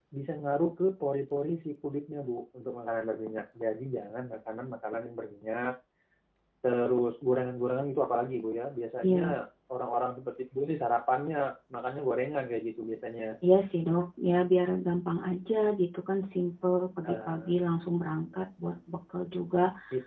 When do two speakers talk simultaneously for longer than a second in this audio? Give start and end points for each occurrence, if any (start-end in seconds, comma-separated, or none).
none